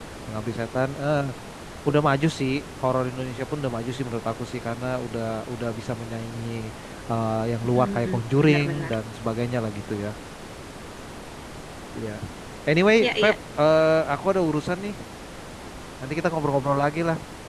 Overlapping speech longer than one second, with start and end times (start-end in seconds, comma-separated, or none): 7.6-8.9